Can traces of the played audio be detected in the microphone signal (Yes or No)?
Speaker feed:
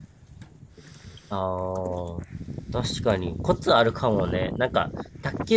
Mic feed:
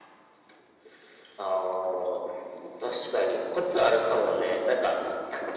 Yes